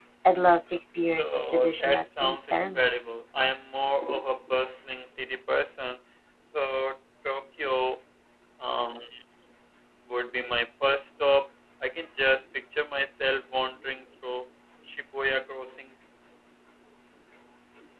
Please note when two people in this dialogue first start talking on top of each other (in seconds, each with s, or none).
1.2 s